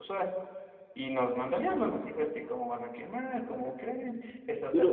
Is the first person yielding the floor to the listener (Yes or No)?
Yes